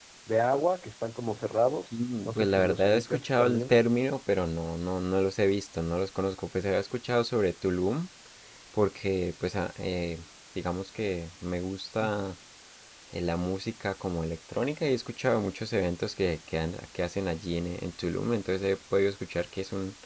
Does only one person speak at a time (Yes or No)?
No